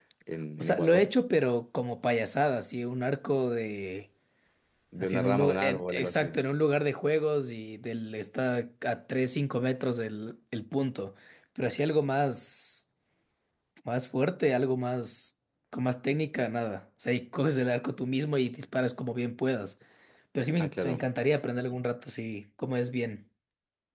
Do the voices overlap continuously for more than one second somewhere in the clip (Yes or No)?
Yes